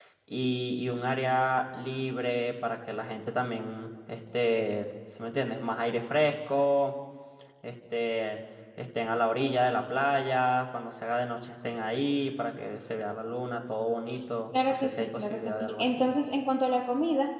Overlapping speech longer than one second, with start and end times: 14.7-16.0

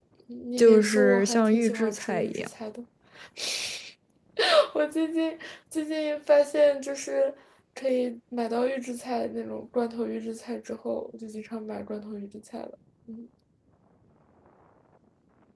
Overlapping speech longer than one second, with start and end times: 0.6-2.5

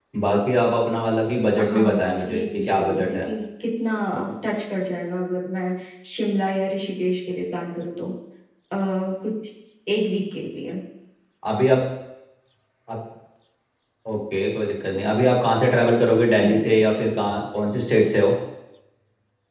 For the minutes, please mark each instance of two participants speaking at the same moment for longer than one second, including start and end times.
1.6-3.2

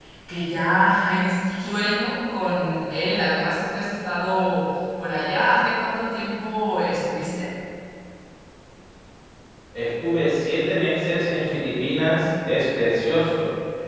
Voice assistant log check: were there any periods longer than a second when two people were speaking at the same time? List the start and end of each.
none

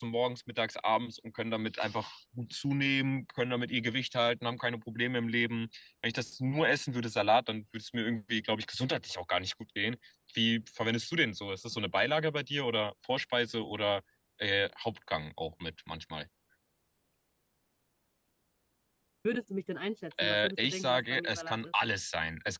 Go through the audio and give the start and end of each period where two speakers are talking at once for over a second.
20.2-21.6

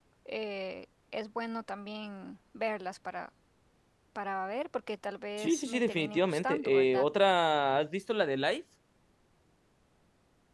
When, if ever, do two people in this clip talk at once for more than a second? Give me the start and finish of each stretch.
5.4-7.0

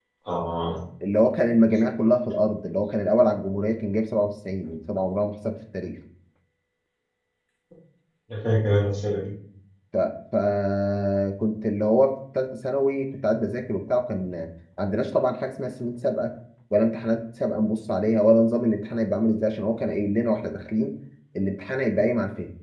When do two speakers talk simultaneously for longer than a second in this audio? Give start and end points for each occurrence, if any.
none

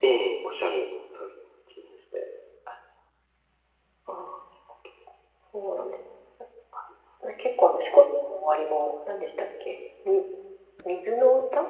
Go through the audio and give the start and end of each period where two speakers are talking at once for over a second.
none

